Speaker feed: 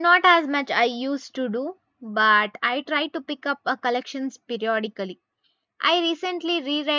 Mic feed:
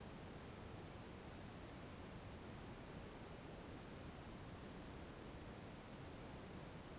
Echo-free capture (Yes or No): Yes